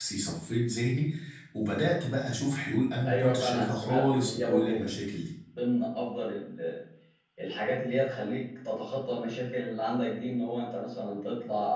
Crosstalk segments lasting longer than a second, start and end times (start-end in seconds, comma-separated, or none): 3.0-5.0